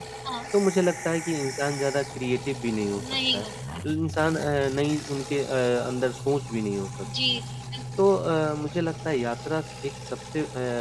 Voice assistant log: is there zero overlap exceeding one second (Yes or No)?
Yes